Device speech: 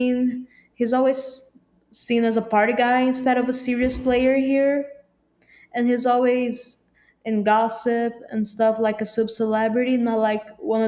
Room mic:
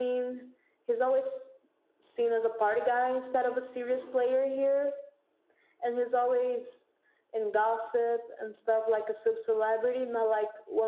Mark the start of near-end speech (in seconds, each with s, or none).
none